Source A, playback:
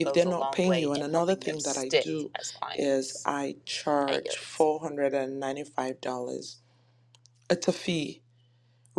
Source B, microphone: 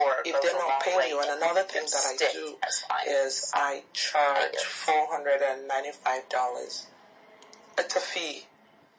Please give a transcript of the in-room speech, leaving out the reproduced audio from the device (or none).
none